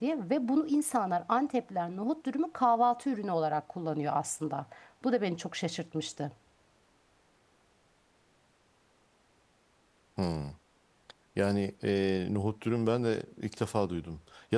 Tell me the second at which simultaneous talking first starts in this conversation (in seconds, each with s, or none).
none